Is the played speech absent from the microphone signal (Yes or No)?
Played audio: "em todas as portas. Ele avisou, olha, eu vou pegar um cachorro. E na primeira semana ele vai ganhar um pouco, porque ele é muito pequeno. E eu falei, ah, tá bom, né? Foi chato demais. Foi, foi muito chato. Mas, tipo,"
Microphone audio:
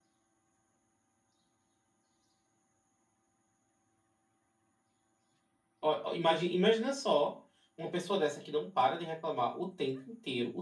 Yes